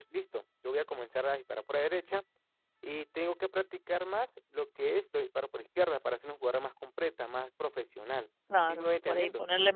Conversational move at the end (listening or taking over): taking over